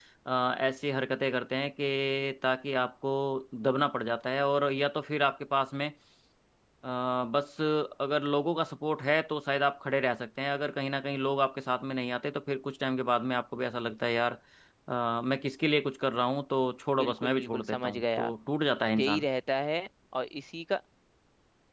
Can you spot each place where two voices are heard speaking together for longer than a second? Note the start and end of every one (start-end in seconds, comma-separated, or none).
17.0-18.3